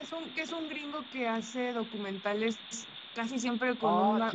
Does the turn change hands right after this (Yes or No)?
Yes